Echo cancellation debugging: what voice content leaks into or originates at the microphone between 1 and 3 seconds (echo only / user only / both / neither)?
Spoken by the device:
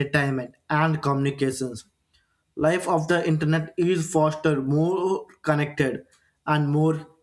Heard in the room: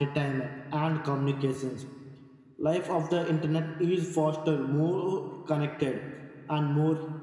echo only